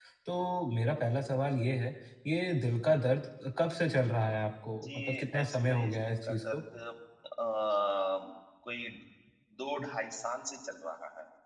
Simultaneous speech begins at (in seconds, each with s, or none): 4.7 s